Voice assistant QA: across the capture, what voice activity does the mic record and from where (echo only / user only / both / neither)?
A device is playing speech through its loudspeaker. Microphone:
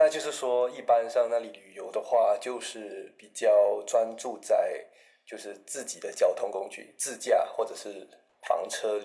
echo only